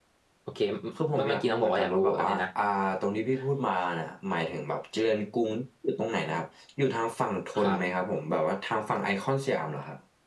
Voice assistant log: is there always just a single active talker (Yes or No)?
No